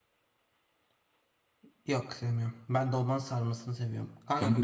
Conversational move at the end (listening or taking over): listening